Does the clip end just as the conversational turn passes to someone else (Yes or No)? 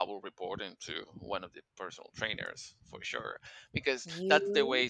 No